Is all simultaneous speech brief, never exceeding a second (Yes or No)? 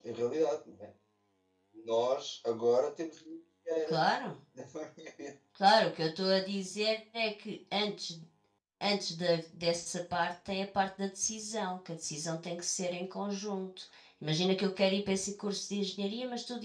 Yes